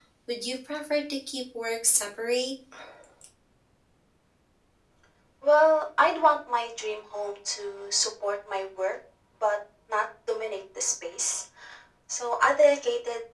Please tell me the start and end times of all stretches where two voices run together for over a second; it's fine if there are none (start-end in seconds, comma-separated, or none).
none